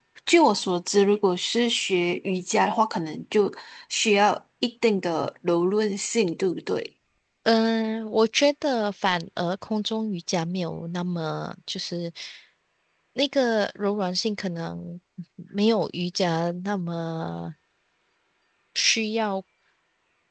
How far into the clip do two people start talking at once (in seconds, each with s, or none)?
none